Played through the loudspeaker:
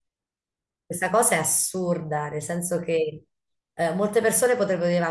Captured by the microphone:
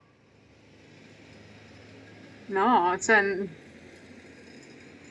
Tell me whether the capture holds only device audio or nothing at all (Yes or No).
No